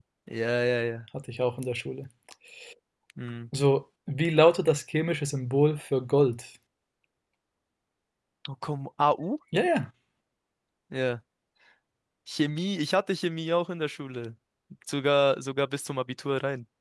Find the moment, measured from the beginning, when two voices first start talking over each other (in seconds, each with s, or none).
none